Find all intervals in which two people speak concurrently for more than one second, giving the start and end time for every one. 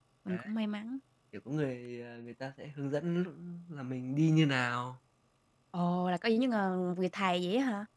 none

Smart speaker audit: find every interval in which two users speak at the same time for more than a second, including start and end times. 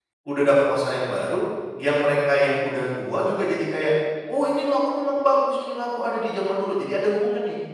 none

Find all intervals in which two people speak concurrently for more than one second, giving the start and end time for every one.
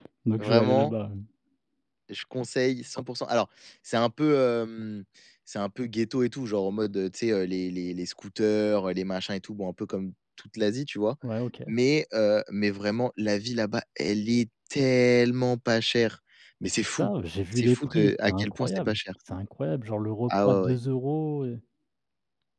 17.5-19.0

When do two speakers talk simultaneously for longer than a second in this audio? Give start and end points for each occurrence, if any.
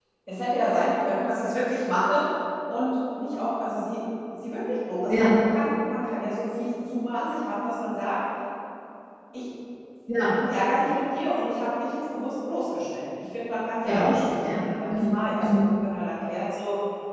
13.8-15.6

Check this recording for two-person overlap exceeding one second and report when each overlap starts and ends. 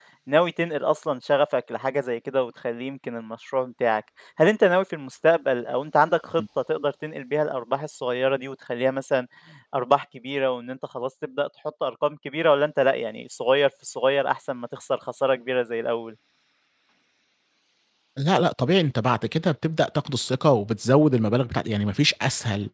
none

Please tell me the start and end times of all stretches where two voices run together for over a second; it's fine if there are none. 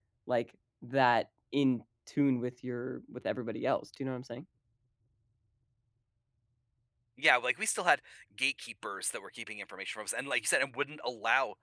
none

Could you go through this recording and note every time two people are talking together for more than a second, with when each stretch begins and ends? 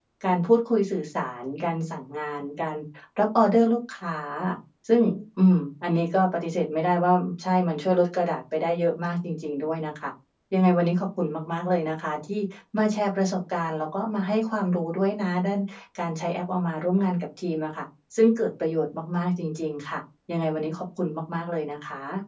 none

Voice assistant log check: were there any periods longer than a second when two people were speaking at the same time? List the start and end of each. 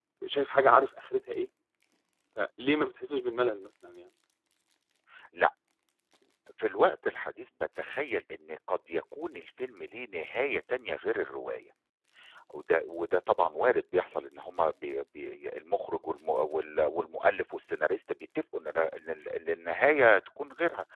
none

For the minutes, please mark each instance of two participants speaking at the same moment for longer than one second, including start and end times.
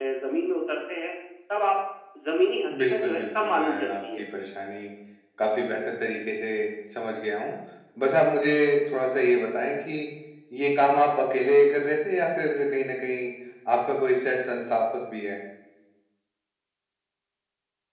2.8-4.2

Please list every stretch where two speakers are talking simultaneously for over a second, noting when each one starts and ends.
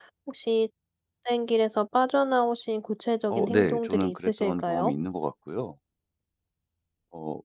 3.3-4.9

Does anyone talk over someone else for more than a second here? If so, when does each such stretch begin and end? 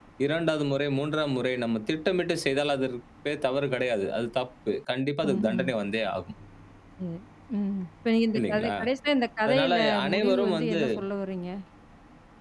9.5-10.8

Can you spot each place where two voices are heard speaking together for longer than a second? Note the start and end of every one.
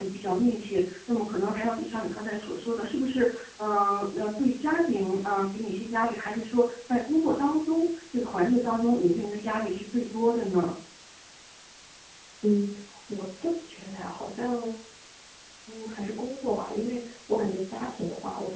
none

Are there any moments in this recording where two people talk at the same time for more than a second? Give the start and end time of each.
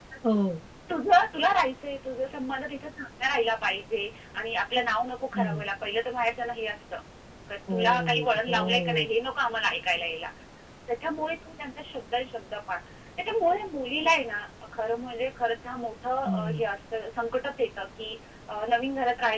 7.7-9.1

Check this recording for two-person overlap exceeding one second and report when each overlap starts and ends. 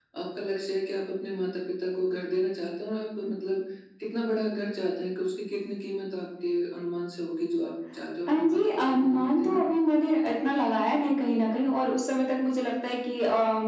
8.3-9.6

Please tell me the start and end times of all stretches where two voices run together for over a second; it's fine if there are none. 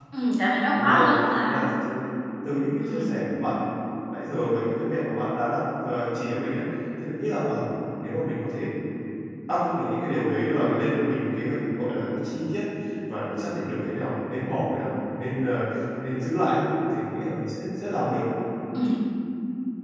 none

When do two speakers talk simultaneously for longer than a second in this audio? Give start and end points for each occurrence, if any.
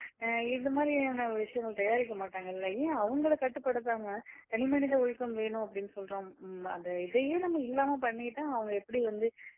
none

